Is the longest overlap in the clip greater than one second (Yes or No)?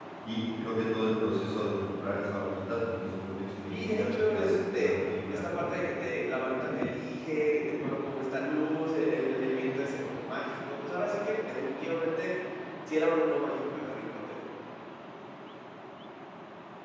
Yes